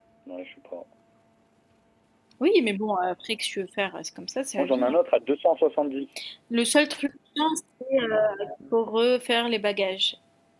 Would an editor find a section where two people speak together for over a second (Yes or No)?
No